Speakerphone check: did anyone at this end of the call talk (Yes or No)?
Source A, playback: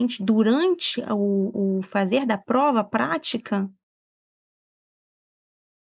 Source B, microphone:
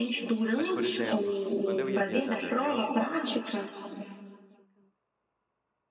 Yes